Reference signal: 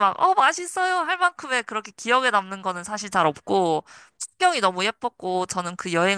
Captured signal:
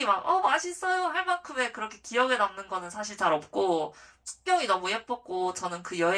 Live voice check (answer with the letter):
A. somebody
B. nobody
B